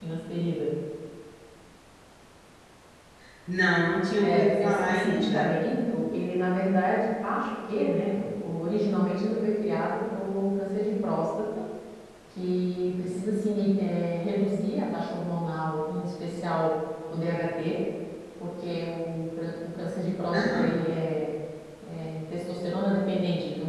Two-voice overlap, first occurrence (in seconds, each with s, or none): 4.2 s